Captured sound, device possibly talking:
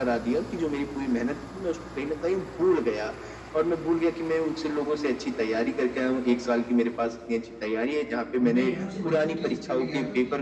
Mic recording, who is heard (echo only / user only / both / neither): both